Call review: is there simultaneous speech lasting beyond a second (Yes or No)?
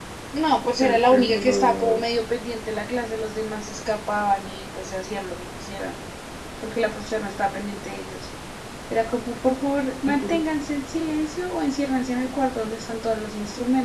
Yes